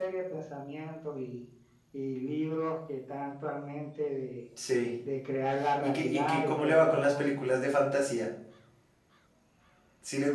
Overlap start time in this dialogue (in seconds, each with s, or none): 5.8 s